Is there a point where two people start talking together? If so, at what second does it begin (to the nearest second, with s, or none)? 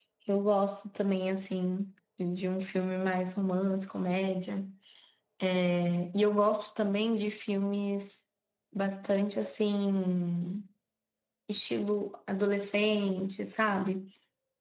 none